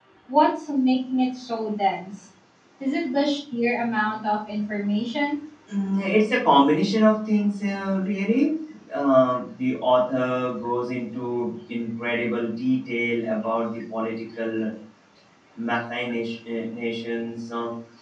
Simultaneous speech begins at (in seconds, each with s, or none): none